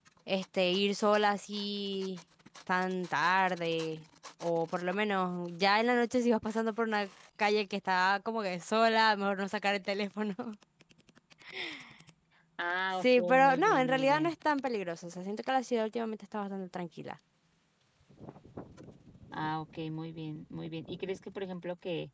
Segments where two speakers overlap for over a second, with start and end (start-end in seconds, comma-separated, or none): 13.0-14.3